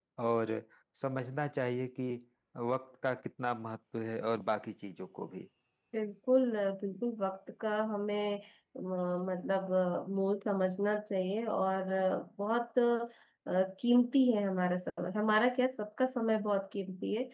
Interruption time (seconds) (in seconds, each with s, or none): none